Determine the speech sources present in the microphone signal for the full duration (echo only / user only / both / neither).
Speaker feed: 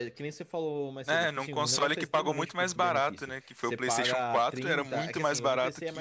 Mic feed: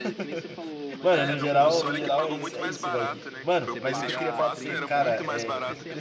both